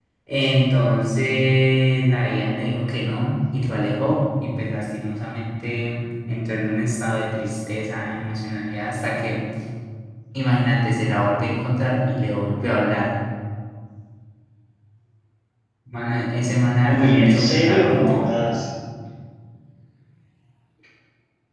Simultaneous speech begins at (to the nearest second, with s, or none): 17 s